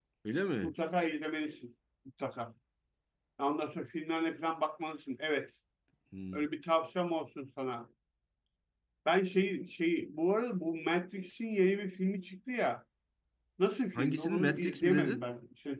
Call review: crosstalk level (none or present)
present